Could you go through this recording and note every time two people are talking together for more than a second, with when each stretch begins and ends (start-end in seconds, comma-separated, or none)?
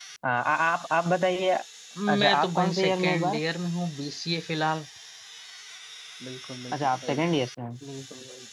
2.1-3.4